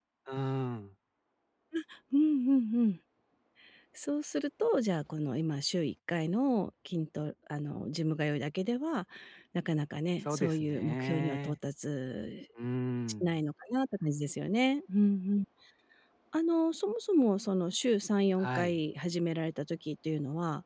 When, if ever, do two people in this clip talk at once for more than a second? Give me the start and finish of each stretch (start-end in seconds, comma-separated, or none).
10.2-11.6